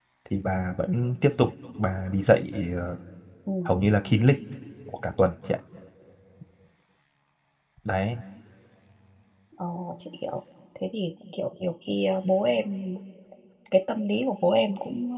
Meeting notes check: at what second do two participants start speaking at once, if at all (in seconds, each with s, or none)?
none